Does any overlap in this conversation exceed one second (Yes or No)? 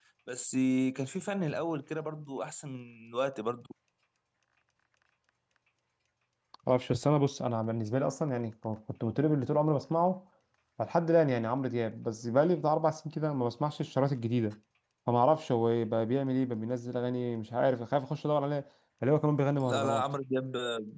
No